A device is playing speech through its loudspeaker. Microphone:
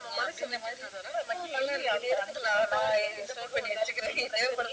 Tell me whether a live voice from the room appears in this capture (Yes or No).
No